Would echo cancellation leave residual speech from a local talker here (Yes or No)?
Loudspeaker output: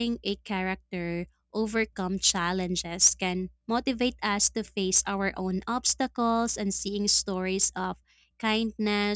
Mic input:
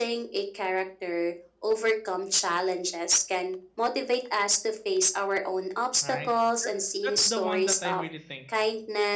Yes